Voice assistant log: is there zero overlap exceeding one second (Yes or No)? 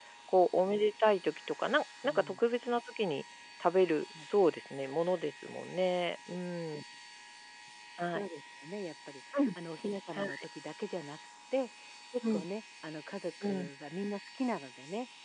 Yes